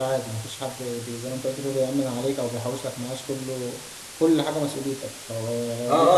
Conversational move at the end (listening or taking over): taking over